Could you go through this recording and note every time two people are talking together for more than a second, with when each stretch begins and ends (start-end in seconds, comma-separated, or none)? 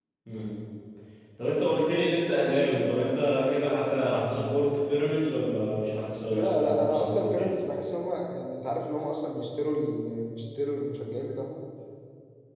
6.3-7.6